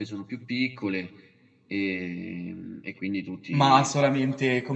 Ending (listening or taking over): taking over